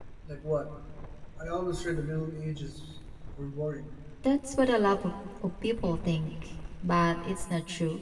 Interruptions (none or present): none